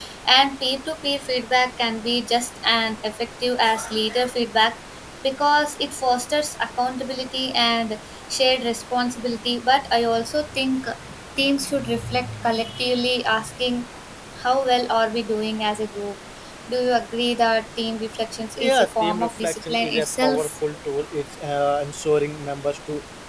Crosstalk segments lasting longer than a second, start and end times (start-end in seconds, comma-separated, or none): 18.6-20.6